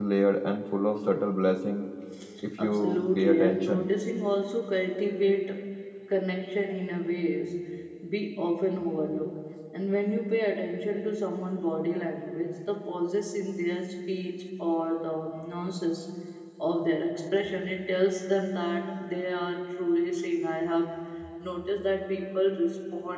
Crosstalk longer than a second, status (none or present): present